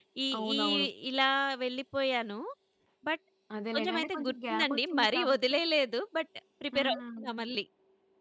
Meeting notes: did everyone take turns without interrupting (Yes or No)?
No